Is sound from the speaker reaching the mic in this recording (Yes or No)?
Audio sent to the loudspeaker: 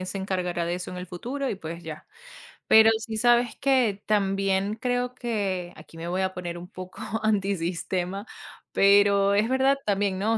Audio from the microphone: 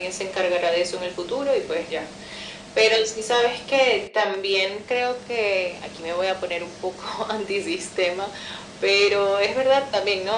Yes